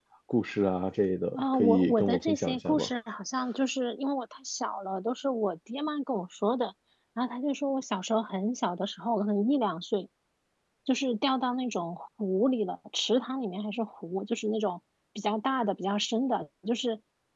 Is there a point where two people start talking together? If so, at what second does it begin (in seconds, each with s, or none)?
1.3 s